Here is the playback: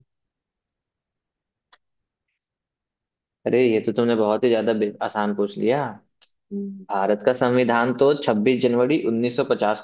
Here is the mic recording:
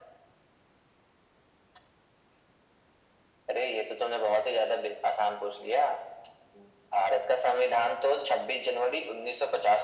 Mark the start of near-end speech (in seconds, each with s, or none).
none